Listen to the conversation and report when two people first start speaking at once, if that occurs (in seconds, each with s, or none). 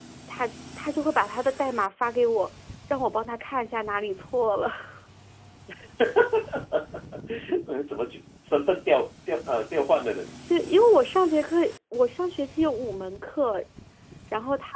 none